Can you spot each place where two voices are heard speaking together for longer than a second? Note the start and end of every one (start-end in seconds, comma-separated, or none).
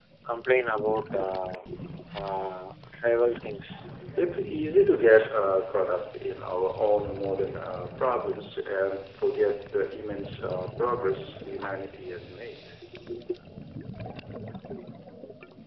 none